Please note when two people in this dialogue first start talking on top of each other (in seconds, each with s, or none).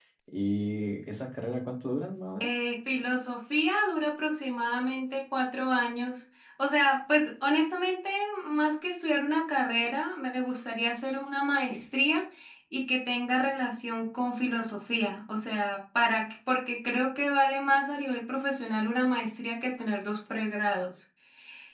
none